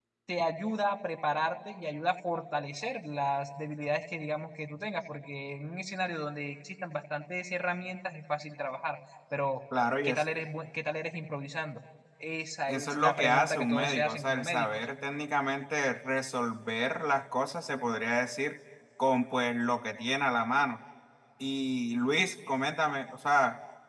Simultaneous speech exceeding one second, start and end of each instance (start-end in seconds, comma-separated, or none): 12.7-14.8